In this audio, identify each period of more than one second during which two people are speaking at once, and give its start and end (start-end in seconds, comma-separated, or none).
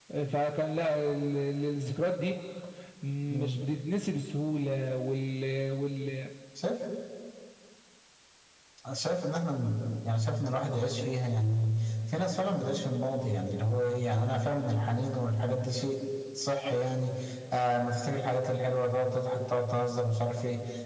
none